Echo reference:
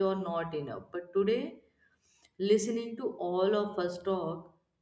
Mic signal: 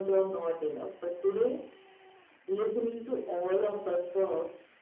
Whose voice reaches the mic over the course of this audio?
echo only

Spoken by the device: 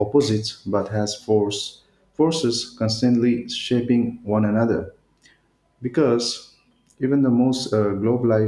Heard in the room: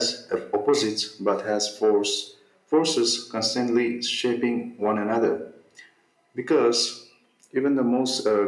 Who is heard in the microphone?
echo only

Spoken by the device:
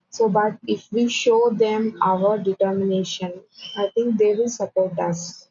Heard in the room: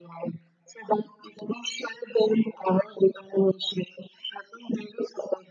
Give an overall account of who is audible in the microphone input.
echo only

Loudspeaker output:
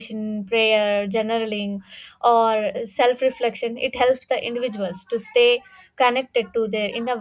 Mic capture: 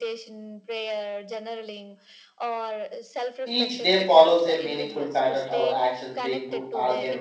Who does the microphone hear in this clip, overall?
both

